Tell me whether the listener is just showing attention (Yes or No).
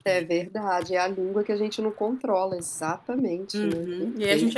No